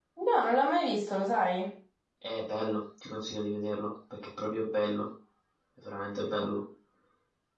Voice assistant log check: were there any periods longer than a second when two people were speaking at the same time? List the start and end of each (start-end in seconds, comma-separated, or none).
none